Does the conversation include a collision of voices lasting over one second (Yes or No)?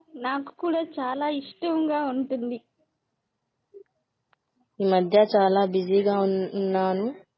No